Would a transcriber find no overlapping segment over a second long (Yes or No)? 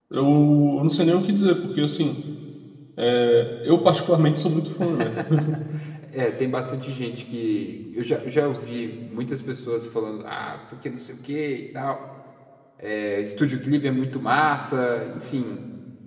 Yes